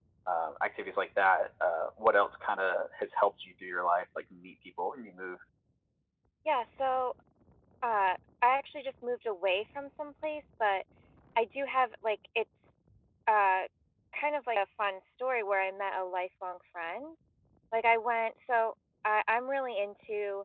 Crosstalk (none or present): none